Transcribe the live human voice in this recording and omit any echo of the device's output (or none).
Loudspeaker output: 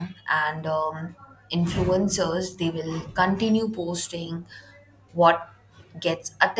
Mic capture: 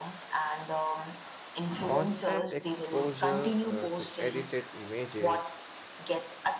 constant exposure uh, to edited images